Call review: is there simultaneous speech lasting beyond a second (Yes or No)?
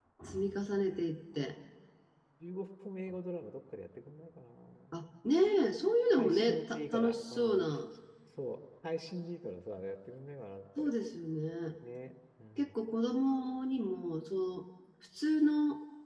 Yes